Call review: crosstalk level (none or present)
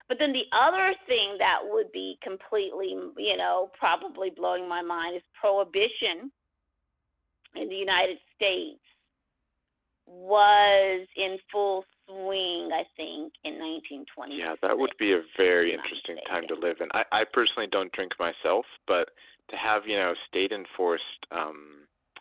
present